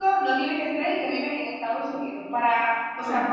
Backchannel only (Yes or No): Yes